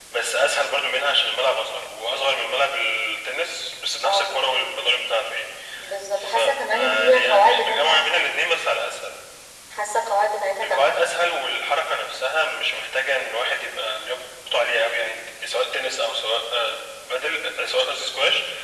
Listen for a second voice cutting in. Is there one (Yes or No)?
Yes